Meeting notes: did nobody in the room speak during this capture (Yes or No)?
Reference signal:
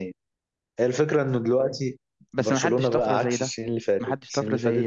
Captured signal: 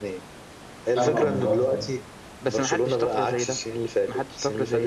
No